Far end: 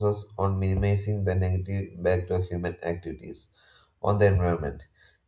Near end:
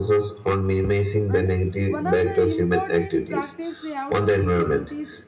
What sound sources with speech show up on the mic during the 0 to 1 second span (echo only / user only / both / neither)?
echo only